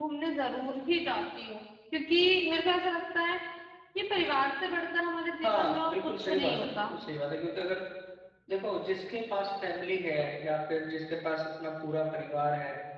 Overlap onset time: 5.4 s

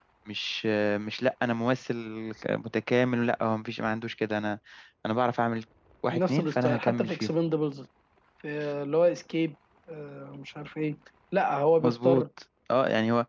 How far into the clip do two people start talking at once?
6.1 s

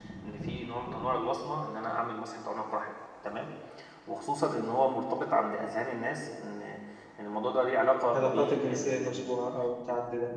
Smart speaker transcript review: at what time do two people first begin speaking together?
8.1 s

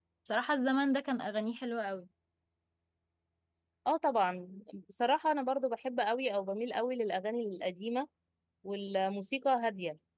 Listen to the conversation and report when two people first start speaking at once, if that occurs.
none

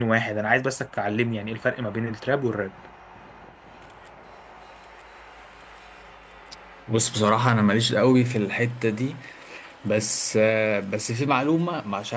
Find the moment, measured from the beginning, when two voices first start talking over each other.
none

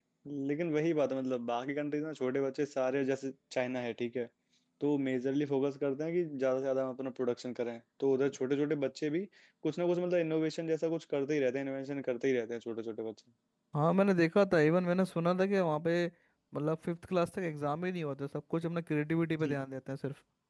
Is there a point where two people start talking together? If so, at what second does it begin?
none

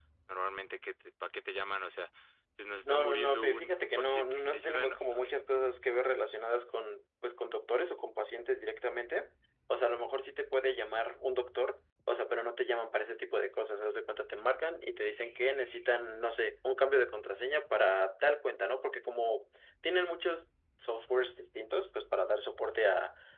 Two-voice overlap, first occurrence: 2.8 s

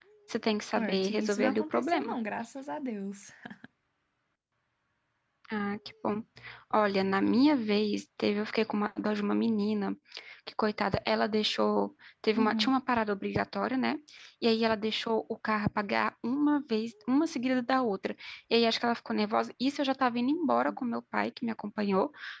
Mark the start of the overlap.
0.8 s

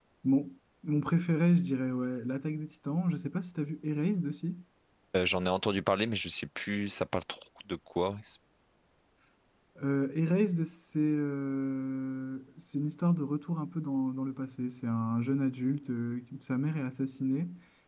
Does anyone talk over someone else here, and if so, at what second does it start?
none

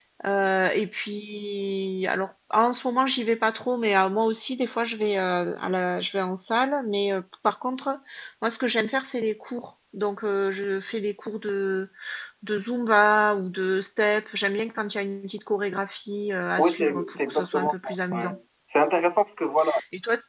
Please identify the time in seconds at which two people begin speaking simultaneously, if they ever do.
16.6 s

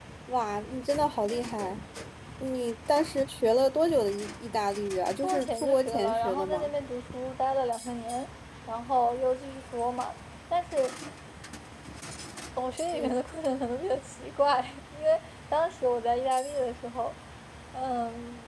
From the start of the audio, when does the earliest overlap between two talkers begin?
5.2 s

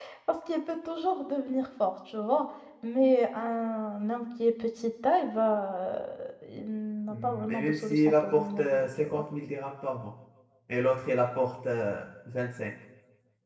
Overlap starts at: 7.1 s

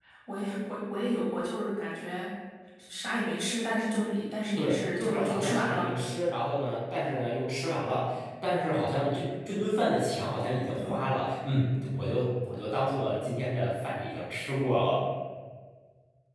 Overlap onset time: 4.5 s

